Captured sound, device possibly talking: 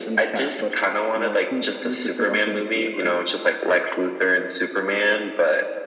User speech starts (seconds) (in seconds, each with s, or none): none